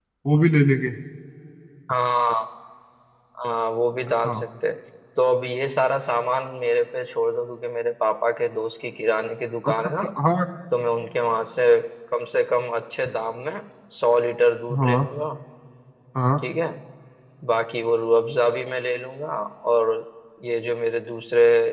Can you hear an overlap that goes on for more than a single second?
No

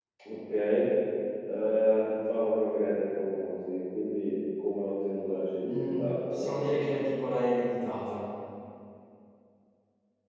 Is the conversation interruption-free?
No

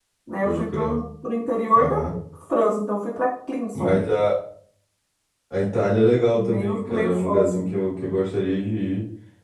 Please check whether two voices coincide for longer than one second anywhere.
Yes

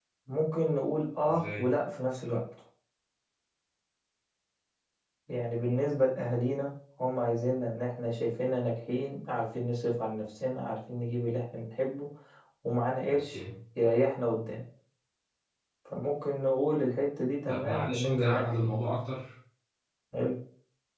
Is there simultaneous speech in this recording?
Yes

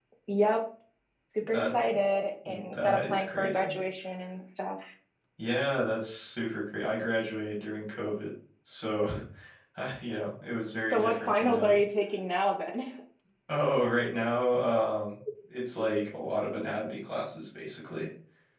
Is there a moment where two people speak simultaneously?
Yes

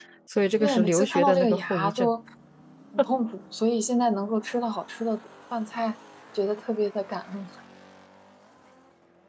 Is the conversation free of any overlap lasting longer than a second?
No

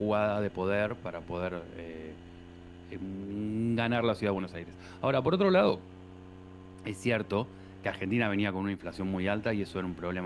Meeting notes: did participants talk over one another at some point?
No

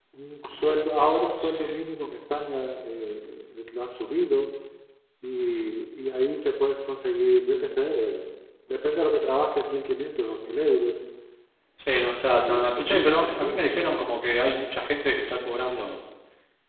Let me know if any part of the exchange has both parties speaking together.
Yes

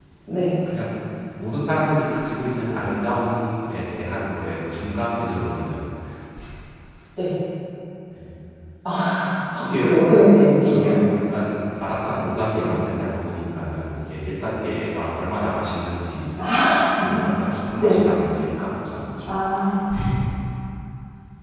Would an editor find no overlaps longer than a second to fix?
Yes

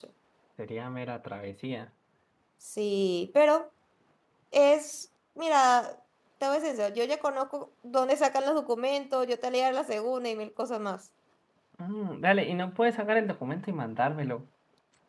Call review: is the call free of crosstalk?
Yes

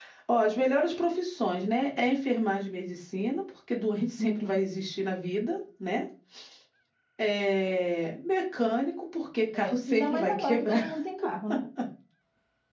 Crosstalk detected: Yes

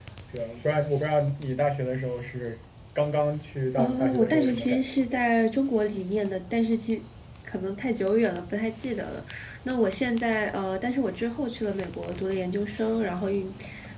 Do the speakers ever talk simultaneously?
Yes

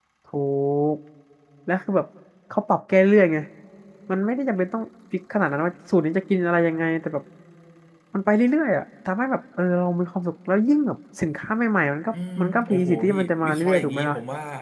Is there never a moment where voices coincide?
No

